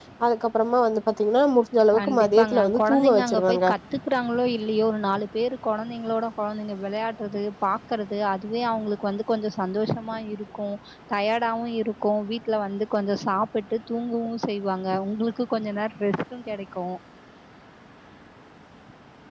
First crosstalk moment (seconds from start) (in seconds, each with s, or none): 1.9 s